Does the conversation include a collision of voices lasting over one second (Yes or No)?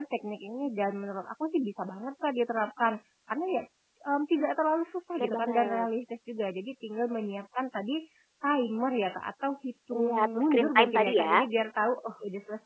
Yes